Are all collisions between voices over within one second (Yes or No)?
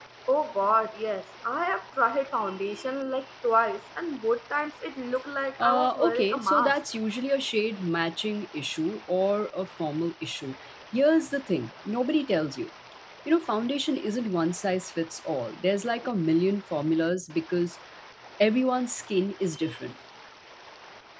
No